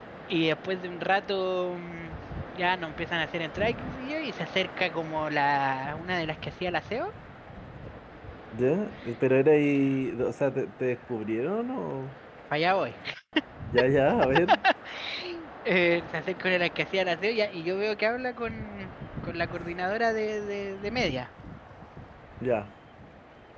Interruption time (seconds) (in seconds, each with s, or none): none